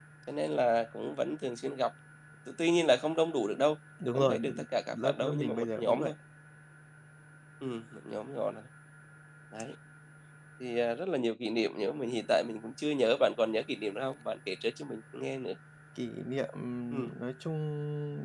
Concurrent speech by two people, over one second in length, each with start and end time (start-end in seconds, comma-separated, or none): 4.9-6.1